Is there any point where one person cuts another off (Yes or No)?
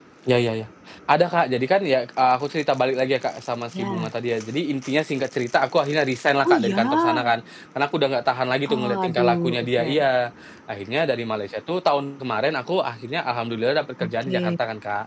Yes